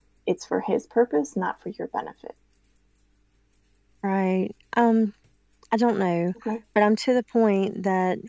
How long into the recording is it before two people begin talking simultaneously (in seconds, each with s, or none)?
none